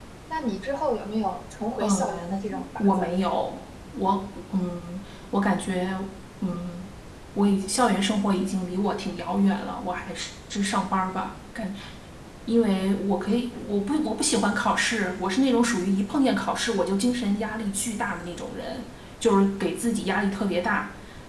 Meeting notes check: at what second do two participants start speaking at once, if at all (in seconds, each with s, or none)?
1.8 s